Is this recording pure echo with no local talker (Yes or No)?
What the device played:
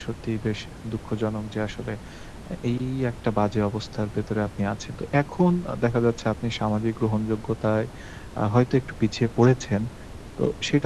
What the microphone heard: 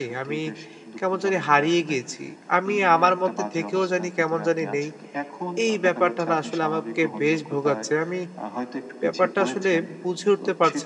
No